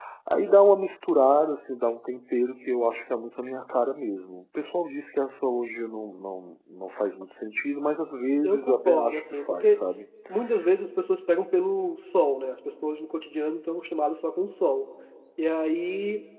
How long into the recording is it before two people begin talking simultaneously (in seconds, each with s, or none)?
8.4 s